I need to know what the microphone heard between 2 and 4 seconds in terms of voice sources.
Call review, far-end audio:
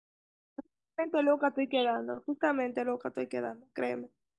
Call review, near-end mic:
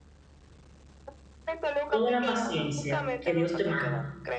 both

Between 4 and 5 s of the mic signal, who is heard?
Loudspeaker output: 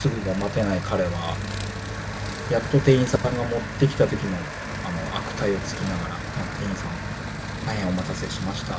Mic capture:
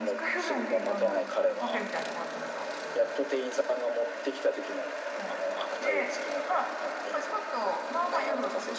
echo only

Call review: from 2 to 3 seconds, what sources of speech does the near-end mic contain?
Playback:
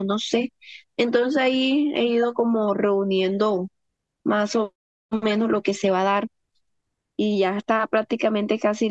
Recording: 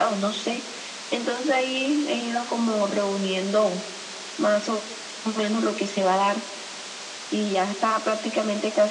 echo only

